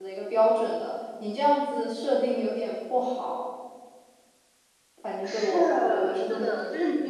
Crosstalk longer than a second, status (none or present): present